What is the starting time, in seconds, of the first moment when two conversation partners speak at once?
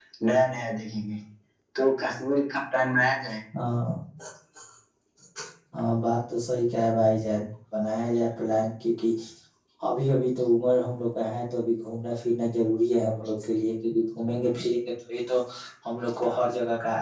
none

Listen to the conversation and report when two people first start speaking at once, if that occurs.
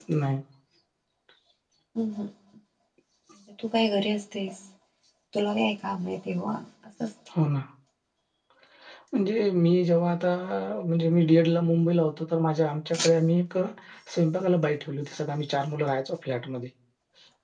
none

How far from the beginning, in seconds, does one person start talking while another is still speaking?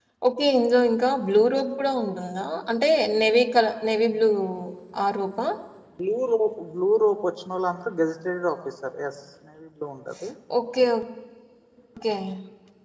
none

